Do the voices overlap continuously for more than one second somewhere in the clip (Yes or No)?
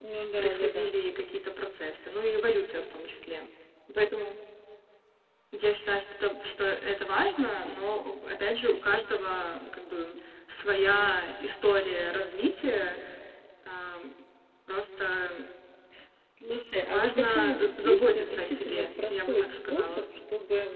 Yes